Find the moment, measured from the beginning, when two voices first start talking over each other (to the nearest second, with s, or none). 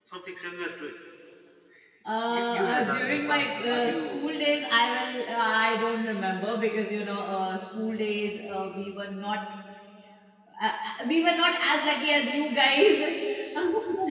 2 s